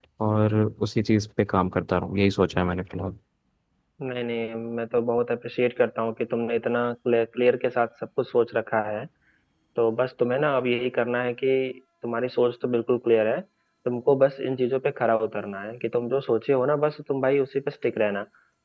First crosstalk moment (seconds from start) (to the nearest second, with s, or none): none